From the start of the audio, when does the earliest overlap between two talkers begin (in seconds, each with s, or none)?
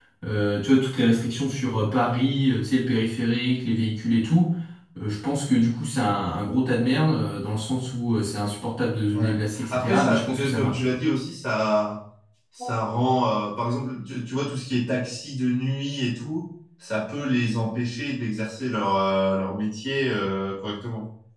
9.1 s